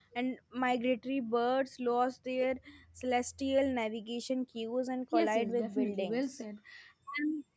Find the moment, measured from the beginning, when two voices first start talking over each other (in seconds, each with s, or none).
5.1 s